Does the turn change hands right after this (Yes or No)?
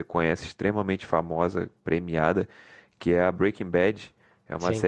No